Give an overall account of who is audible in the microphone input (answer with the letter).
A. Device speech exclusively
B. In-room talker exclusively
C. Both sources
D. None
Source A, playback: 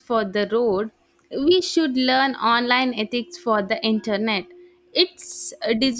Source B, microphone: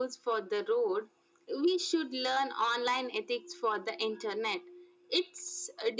A